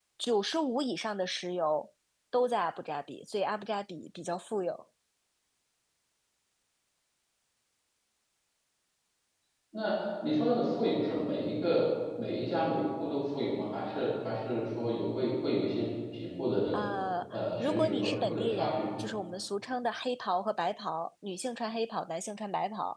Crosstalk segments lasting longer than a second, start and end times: 17.3-18.8

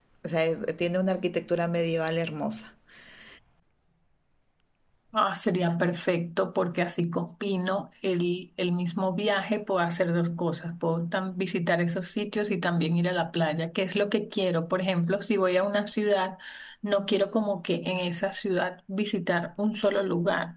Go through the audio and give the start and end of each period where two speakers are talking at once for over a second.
none

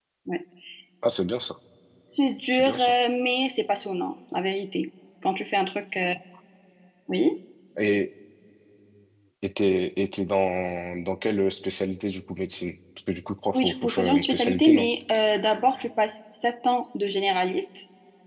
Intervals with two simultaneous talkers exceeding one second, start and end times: 13.5-14.9

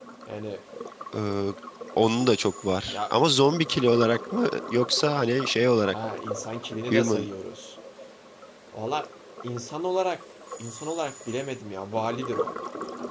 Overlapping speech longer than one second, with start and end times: none

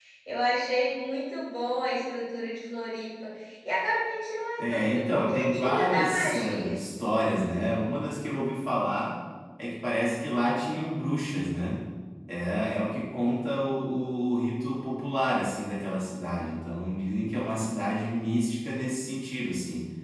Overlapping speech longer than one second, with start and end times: 4.6-6.7

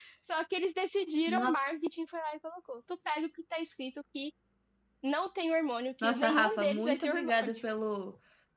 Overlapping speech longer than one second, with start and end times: 6.0-7.6

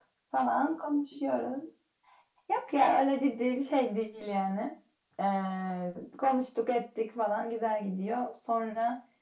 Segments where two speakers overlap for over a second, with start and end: none

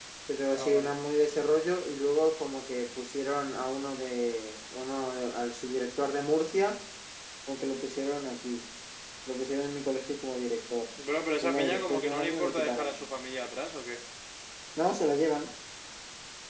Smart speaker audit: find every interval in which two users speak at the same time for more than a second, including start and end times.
11.4-13.0

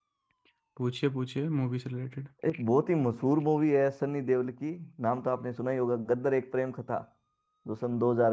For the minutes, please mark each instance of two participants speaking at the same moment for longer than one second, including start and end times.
none

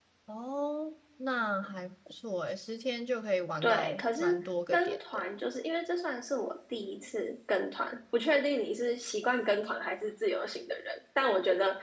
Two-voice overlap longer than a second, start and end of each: 3.6-5.2

